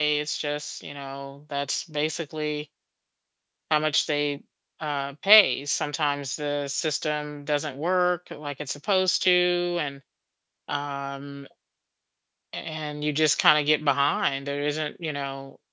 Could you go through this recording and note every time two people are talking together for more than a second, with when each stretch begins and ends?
none

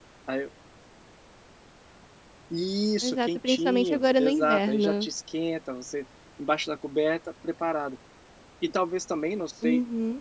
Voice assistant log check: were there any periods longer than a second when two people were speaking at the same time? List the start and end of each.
3.0-5.1

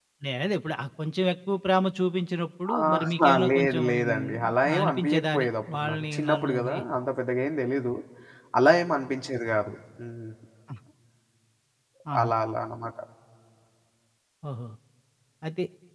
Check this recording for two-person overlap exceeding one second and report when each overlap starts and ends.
2.8-6.8

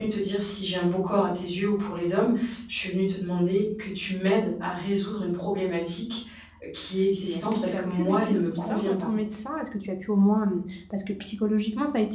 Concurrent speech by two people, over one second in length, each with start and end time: 7.2-9.1

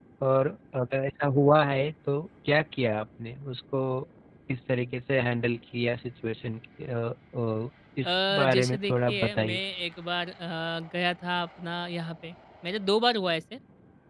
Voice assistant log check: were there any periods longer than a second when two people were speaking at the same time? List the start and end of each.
8.0-9.6

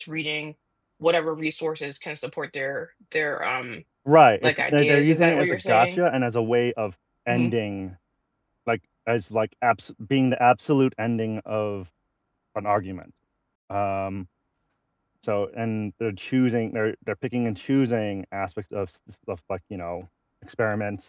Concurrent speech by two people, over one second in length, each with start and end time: 4.4-6.0

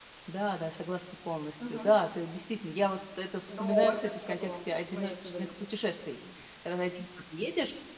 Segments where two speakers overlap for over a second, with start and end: 3.5-5.6

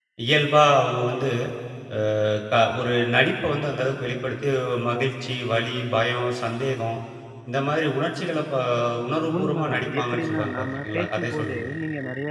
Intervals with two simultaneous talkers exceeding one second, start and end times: 9.4-11.7

